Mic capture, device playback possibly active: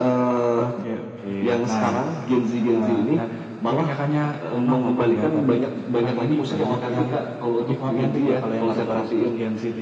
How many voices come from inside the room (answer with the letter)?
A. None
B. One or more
A